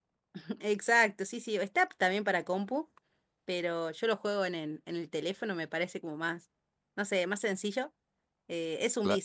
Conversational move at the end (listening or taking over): listening